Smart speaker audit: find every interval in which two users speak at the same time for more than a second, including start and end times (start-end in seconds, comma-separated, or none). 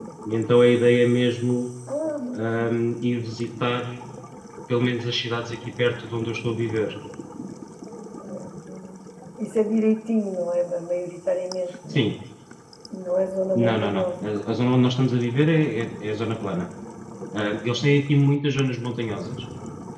none